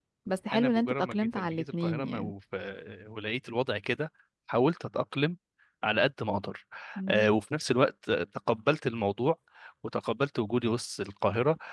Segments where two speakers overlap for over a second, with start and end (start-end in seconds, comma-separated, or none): 0.5-2.3